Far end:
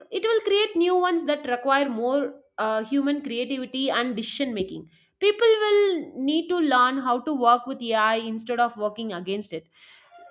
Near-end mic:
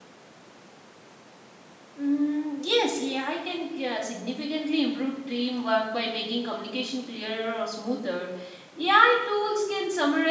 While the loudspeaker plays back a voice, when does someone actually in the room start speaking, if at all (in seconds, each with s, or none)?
2.0 s